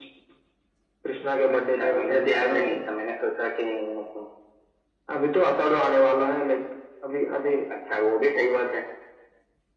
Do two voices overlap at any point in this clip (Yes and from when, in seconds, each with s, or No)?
Yes, from 1.5 s